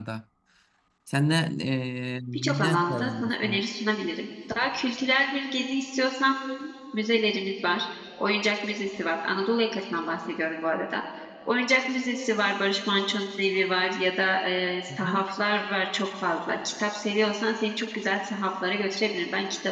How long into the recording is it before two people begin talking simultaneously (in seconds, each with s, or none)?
2.3 s